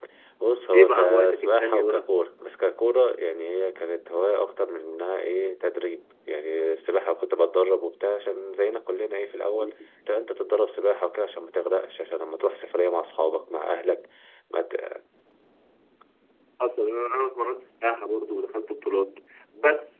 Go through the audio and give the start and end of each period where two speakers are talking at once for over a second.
0.7-2.1

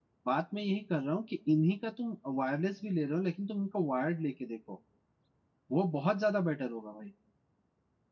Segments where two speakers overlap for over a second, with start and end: none

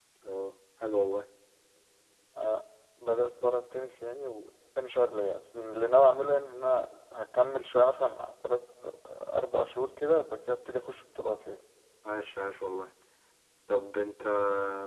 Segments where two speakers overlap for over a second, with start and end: none

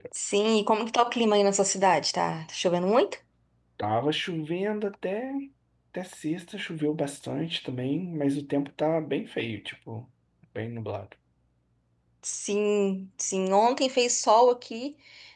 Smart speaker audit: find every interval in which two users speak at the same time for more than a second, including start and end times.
none

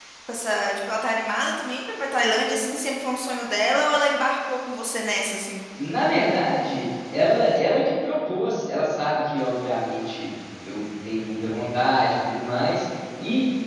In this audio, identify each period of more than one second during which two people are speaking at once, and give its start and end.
none

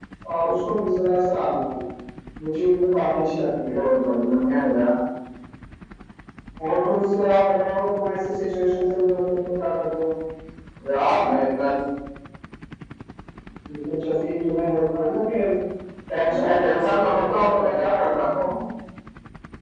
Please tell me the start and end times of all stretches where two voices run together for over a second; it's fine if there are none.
16.3-17.9

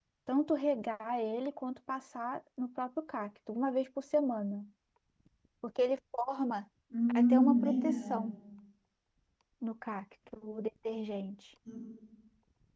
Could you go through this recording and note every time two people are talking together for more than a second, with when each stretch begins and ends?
7.1-8.3

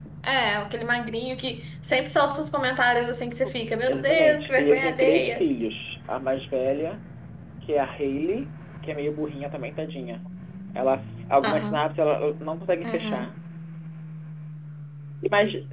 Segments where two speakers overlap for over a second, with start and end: 3.9-5.4

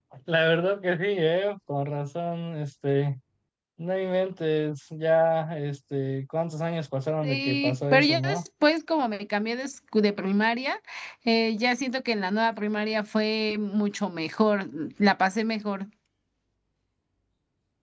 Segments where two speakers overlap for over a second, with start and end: 7.2-8.4

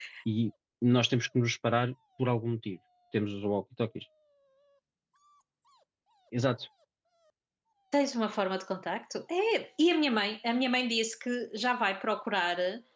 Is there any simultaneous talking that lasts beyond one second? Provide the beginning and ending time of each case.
none

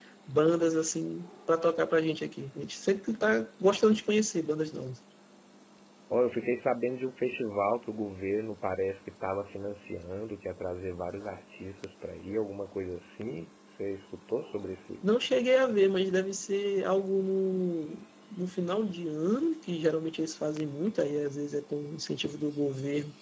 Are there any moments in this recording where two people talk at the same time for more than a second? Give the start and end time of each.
none

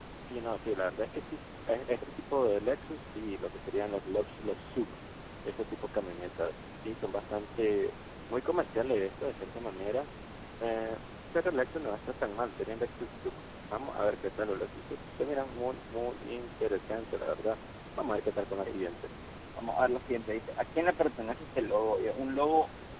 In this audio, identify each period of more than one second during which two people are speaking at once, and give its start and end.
none

